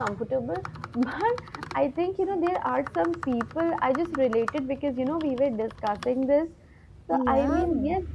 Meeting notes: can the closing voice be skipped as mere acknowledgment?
Yes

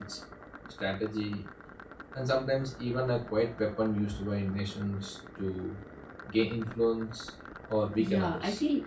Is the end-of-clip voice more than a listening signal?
Yes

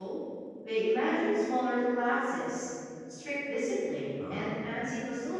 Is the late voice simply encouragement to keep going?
Yes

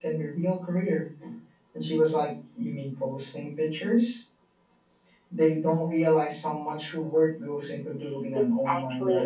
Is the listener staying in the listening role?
No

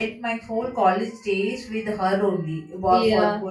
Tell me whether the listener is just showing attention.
Yes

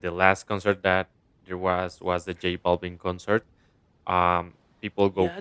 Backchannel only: No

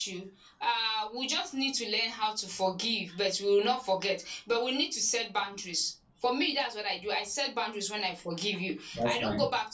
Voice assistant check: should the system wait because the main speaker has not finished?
Yes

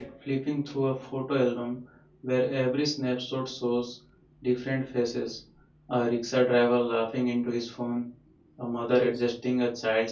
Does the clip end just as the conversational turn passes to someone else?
No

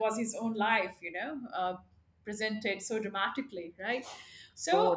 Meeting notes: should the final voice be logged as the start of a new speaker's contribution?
Yes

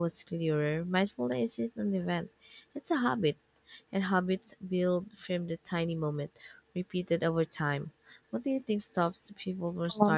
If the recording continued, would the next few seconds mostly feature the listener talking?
Yes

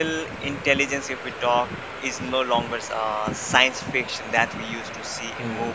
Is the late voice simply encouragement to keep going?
Yes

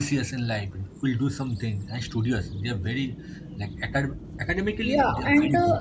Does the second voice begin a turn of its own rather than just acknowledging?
Yes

